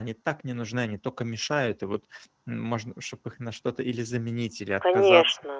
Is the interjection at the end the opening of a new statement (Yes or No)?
Yes